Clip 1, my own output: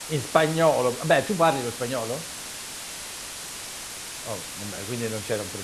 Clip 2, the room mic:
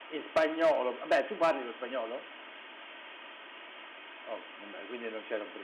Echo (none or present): present